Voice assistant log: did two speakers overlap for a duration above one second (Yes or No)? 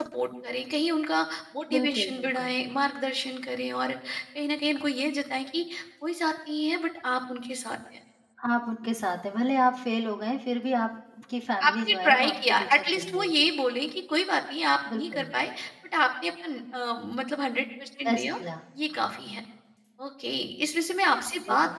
Yes